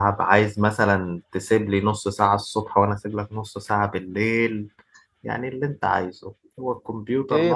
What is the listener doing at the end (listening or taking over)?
taking over